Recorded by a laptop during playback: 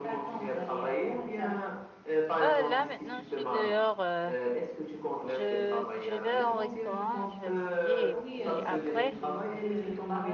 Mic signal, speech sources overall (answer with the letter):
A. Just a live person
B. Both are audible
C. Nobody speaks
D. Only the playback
B